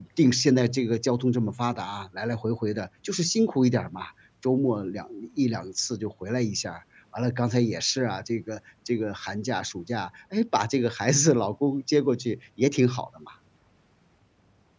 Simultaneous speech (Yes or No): No